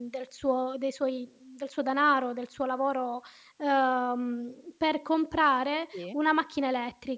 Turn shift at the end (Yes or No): No